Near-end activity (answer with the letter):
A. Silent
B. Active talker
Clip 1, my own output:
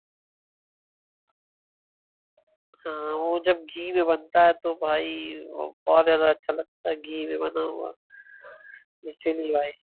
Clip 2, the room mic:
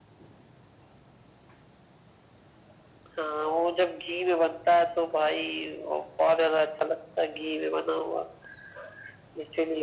A